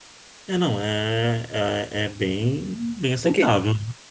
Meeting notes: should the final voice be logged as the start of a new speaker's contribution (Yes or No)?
Yes